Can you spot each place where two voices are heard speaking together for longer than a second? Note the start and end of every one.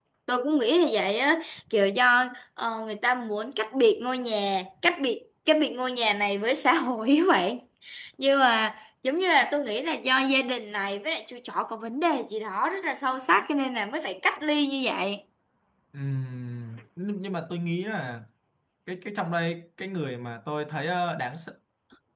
none

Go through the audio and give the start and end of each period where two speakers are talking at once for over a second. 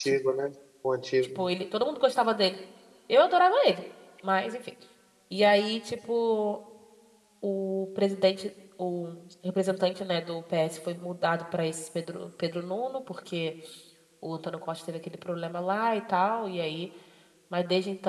none

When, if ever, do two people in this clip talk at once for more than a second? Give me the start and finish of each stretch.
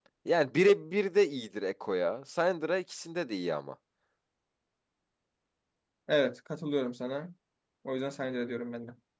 none

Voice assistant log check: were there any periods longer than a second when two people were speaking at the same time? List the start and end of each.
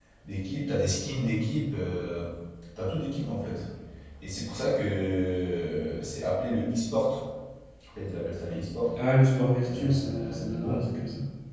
9.6-10.9

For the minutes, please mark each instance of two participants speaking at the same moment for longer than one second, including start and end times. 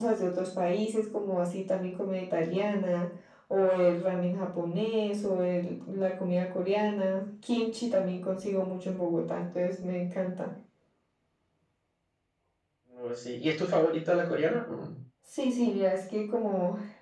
none

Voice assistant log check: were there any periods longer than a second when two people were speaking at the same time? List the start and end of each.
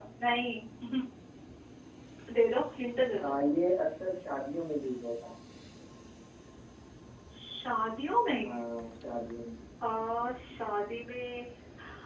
none

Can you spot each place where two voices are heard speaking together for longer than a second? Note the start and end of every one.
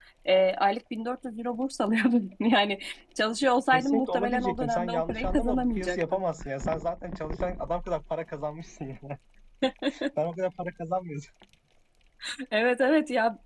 3.7-6.2

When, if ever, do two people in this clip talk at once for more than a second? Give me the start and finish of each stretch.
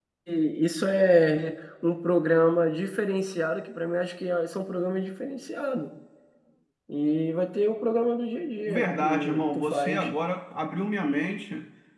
8.7-10.1

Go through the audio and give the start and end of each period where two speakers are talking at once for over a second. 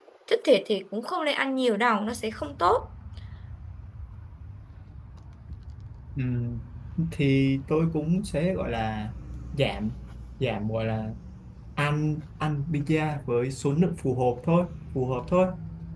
none

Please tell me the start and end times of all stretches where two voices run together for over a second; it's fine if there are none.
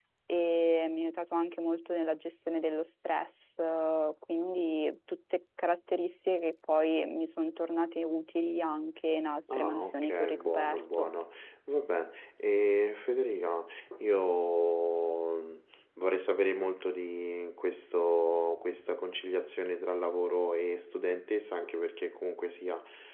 9.5-11.1

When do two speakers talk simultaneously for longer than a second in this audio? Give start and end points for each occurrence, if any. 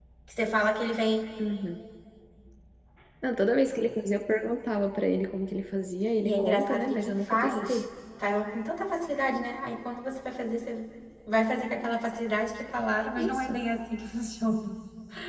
6.2-7.8

